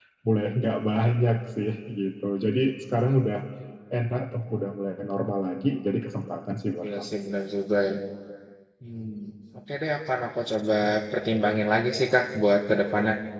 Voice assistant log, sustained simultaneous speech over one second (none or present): none